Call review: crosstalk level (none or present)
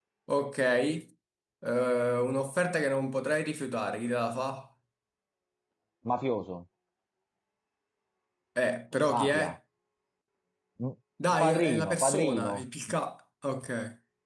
present